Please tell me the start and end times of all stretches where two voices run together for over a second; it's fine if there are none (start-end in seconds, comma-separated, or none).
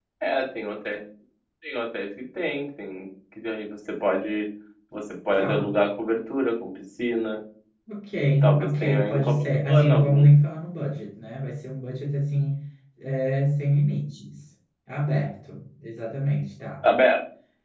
8.4-10.2